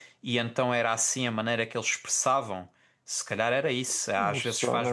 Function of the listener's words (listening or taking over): taking over